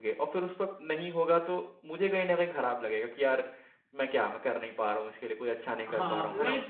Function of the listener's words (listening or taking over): taking over